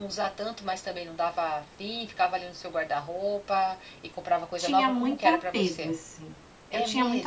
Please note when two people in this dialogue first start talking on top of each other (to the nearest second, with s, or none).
5 s